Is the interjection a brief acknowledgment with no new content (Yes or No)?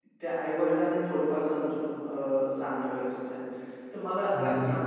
Yes